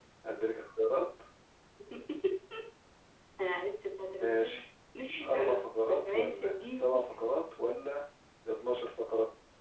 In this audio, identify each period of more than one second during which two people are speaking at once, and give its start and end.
5.3-7.0

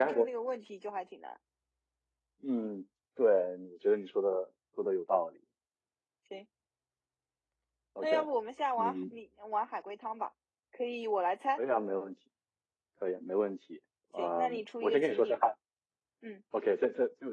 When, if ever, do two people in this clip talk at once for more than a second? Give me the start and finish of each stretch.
14.2-15.5

